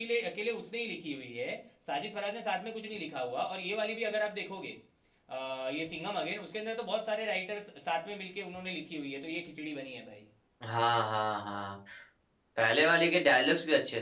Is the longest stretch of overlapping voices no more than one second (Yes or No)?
Yes